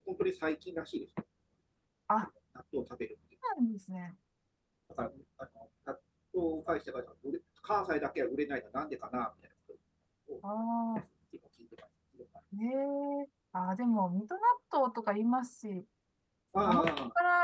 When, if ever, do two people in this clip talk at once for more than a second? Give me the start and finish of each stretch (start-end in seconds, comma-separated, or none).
none